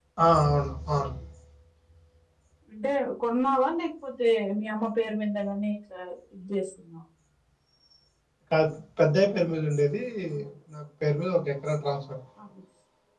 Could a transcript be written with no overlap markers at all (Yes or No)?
Yes